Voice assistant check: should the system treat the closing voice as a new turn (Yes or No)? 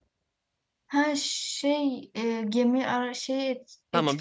Yes